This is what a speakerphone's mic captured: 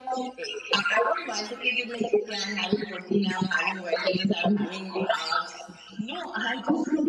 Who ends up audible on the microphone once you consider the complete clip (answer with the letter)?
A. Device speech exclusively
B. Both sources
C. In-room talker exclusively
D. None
A